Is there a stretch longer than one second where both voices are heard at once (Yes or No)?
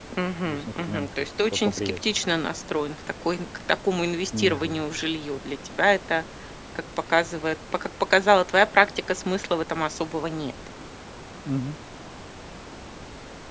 Yes